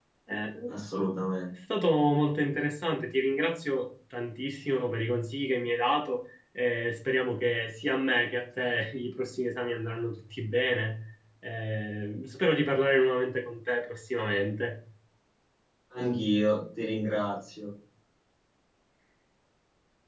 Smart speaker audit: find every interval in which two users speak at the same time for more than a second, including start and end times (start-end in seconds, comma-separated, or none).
none